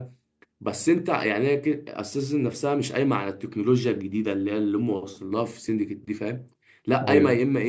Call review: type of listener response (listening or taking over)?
listening